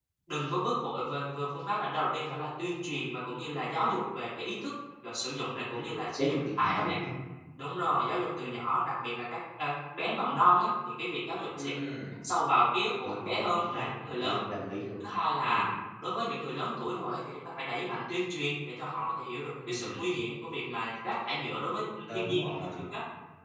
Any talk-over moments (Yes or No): Yes